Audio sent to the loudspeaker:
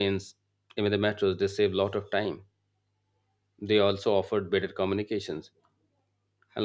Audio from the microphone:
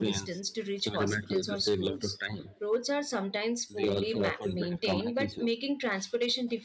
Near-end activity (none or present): present